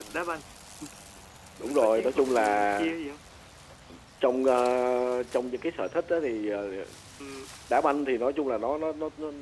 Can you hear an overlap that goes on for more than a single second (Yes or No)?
Yes